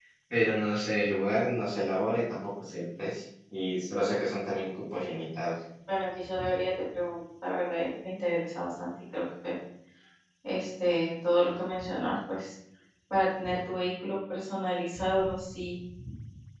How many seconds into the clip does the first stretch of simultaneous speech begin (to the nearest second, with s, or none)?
none